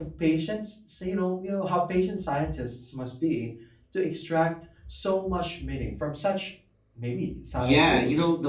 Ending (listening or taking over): taking over